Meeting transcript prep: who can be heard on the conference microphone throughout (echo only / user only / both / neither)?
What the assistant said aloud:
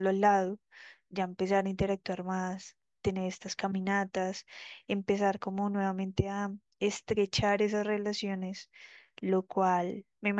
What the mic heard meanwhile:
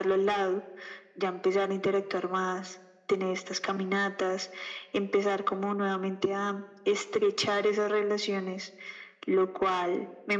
echo only